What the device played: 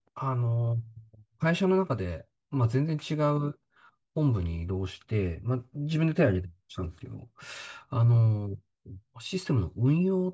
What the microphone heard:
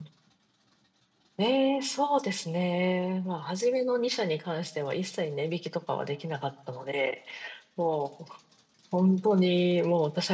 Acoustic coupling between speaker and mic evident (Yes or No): No